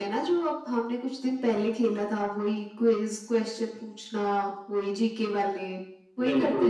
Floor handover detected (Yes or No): Yes